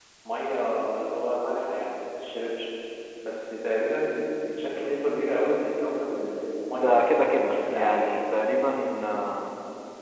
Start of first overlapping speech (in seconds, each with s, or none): 6.7 s